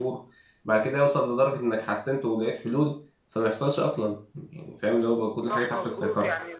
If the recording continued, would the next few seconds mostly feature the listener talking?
Yes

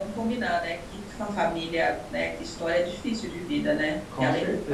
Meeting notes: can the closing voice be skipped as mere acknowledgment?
Yes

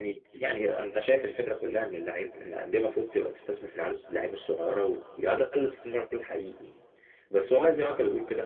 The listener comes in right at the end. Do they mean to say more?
No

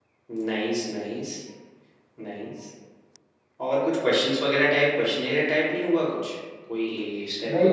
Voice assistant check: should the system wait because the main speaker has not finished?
No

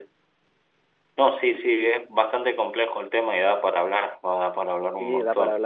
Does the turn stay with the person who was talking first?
No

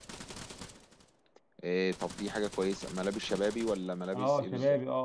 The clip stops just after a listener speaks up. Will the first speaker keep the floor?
No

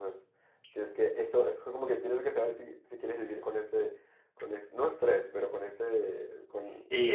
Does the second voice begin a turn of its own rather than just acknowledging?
Yes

